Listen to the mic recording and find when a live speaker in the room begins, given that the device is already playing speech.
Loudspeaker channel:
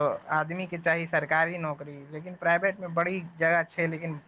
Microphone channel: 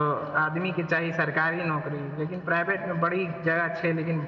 none

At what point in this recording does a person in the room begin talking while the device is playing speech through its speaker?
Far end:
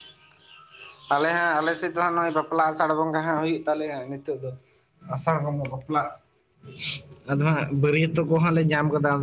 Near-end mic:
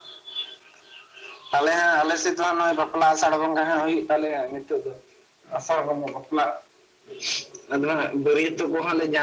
none

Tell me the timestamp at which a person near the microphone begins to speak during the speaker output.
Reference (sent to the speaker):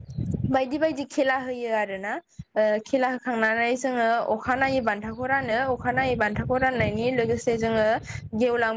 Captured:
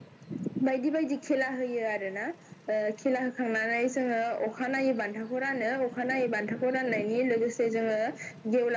none

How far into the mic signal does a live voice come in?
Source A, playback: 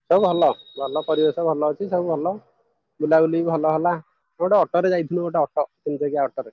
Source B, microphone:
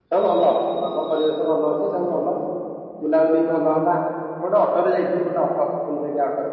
none

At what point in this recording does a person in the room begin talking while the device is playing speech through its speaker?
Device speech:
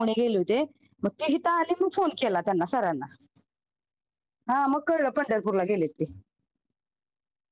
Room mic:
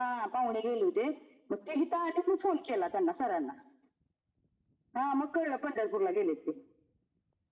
none

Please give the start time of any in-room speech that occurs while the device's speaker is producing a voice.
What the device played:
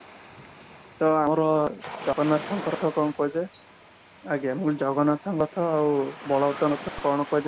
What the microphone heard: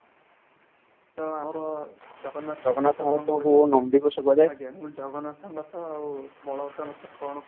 2.7 s

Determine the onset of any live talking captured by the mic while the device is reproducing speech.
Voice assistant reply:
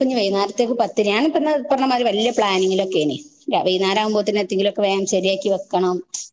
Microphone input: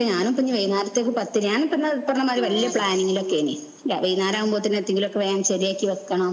2.4 s

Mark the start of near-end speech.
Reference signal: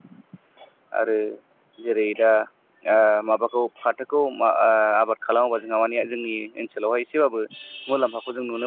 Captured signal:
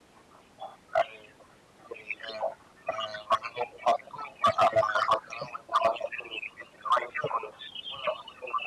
none

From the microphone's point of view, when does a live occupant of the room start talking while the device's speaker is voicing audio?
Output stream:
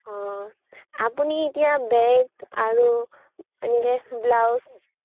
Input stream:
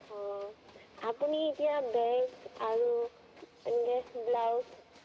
none

